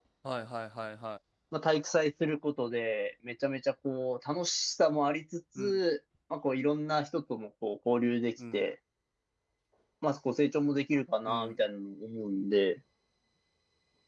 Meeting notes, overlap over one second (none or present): none